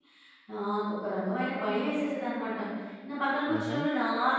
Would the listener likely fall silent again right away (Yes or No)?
Yes